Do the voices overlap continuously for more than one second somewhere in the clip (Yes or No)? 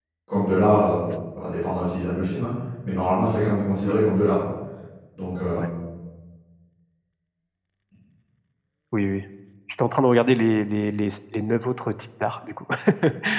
No